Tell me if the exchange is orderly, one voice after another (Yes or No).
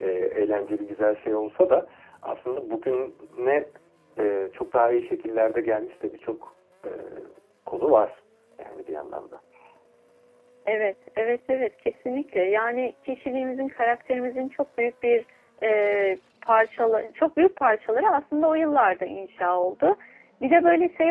Yes